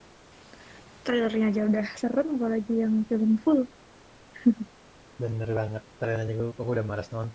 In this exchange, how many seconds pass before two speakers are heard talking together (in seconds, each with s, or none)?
none